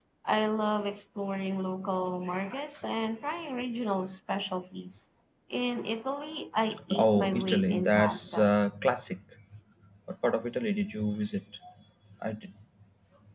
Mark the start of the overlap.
6.9 s

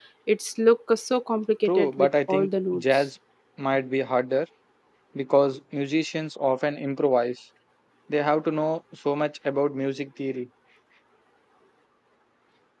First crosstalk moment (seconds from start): 1.7 s

